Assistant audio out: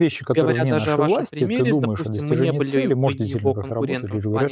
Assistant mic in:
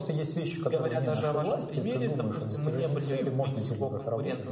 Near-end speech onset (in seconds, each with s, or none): none